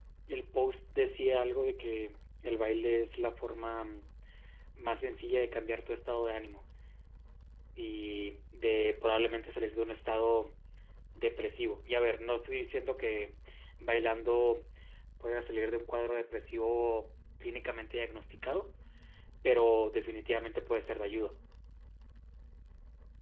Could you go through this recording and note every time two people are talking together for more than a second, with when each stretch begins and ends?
none

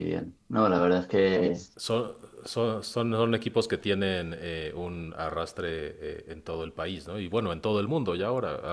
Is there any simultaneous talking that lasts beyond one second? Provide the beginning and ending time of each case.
none

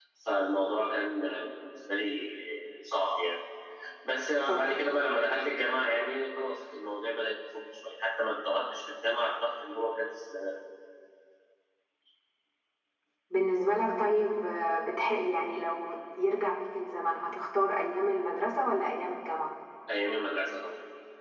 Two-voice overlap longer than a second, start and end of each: none

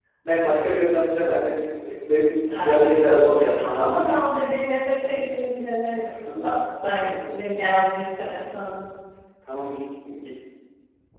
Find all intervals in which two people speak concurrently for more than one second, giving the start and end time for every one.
2.5-4.2

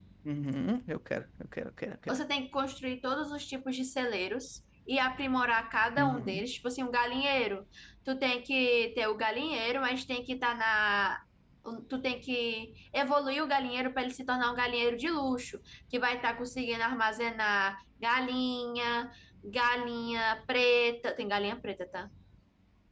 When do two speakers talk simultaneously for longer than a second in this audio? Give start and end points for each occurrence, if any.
none

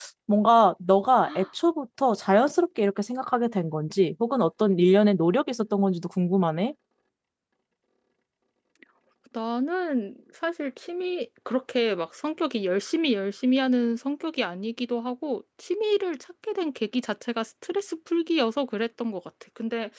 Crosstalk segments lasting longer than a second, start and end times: none

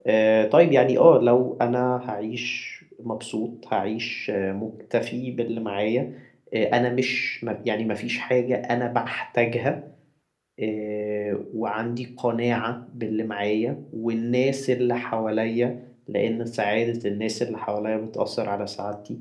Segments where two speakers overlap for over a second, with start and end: none

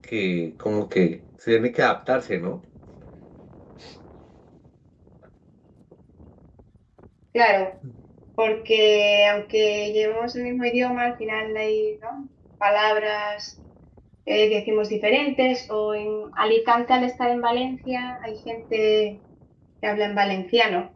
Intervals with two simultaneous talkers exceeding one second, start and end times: none

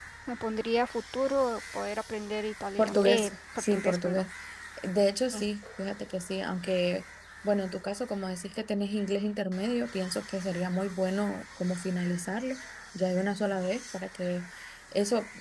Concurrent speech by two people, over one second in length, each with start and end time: 2.8-4.3

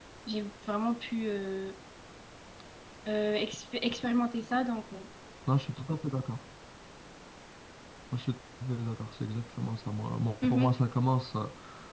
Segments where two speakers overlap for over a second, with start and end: none

